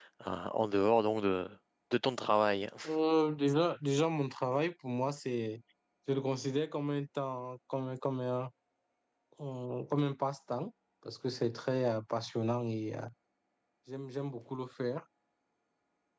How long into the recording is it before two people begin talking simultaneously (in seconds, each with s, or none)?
none